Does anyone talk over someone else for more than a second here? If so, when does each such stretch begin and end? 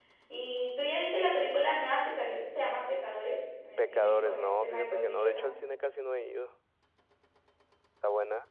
3.8-5.5

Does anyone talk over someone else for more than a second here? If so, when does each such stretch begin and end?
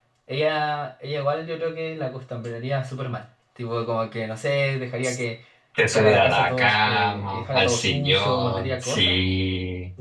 5.8-9.2

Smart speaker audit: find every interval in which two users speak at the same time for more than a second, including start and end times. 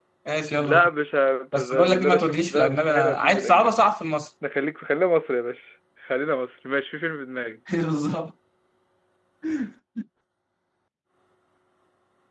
1.5-3.7

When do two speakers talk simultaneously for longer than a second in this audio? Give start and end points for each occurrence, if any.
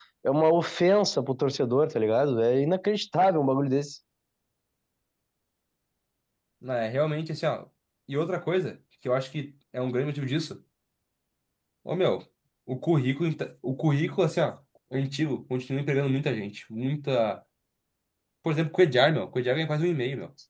none

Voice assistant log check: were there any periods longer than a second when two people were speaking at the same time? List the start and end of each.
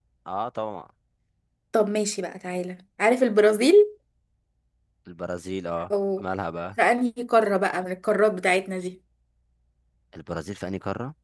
none

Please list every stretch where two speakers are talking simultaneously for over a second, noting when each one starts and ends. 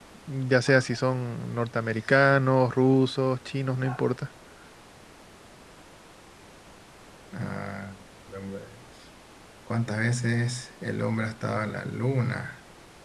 none

